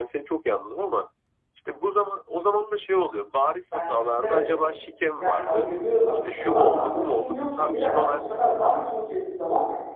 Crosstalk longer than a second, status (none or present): present